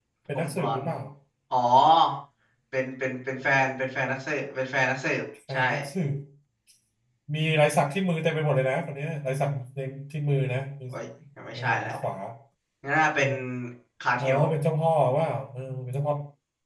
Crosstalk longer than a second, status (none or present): none